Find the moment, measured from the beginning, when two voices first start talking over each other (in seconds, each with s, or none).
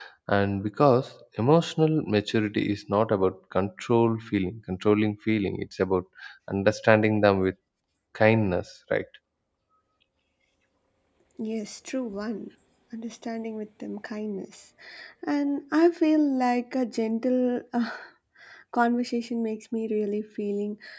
none